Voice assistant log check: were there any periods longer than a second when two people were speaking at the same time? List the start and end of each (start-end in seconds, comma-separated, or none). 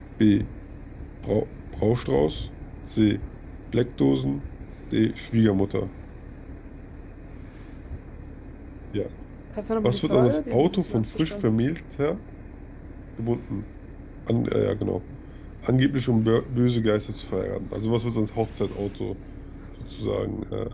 9.8-11.5